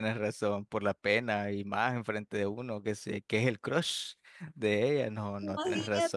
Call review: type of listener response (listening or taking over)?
taking over